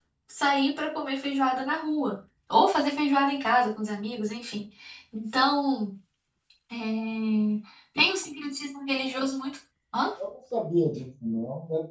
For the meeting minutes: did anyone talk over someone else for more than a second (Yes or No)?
No